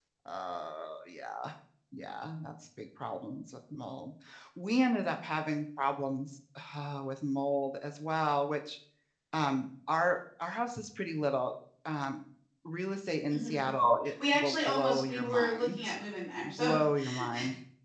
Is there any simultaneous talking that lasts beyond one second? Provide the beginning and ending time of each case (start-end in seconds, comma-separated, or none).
14.3-15.8